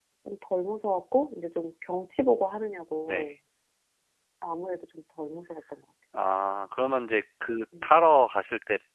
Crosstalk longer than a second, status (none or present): none